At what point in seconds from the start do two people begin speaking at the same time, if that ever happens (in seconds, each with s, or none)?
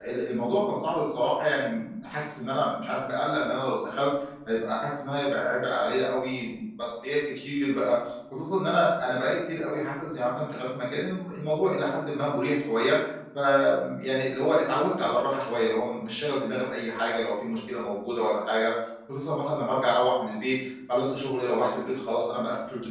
none